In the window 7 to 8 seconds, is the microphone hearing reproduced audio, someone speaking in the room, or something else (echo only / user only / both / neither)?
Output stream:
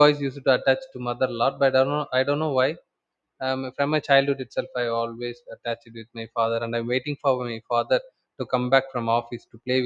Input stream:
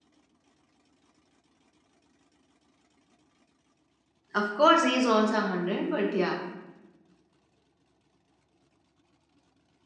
neither